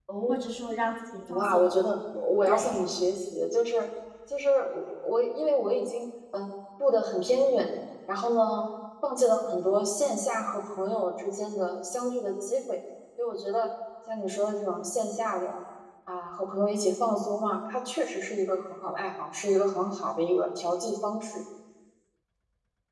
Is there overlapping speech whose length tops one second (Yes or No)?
No